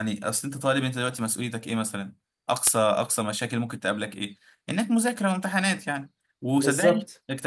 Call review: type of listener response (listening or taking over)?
listening